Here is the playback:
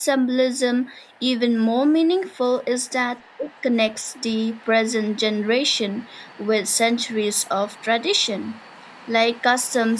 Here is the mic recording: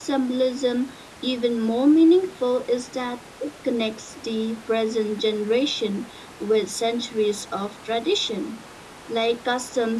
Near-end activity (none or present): none